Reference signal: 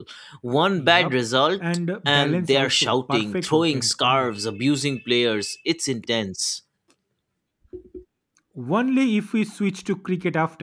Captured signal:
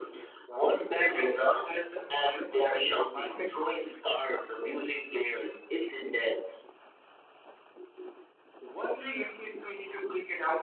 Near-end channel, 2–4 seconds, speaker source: echo only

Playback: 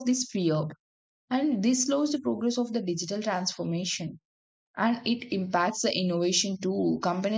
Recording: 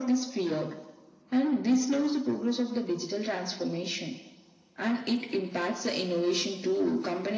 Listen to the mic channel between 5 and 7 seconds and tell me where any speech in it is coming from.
echo only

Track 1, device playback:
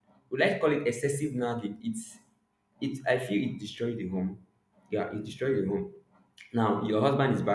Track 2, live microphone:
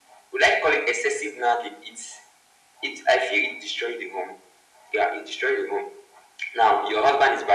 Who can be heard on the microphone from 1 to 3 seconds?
echo only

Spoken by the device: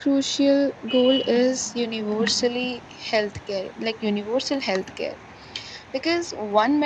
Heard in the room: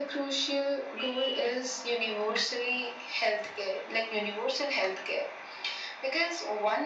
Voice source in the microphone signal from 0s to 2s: echo only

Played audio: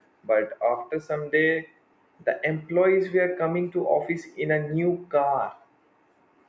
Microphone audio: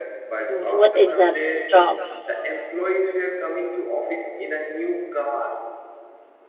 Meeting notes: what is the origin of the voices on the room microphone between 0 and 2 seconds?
both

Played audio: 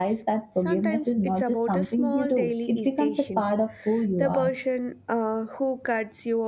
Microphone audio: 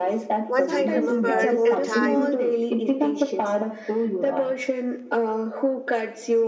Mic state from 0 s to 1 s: both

